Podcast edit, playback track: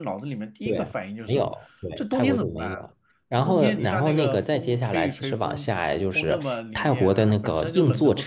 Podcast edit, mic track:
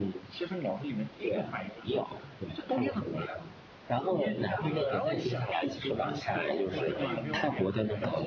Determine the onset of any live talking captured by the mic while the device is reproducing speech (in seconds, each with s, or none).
4.6 s